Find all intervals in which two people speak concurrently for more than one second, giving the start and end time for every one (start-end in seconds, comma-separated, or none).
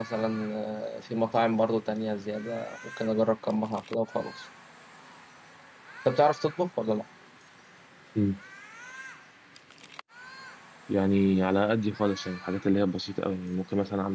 none